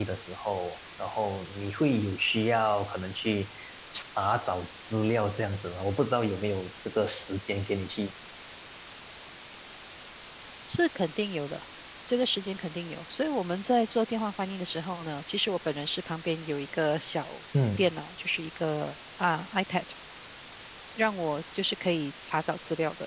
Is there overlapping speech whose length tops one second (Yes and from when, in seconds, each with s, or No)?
No